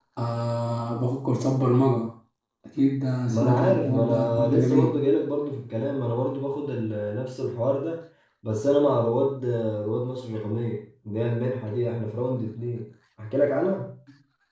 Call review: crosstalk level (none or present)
present